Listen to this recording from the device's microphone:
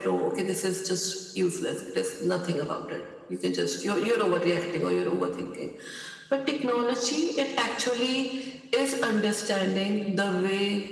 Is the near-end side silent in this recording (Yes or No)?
Yes